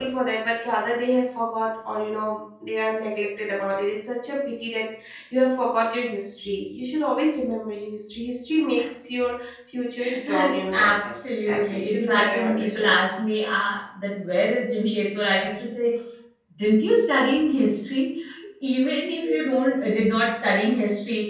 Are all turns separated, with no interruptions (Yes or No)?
No